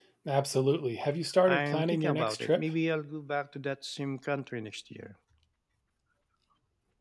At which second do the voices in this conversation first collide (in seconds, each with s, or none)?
1.5 s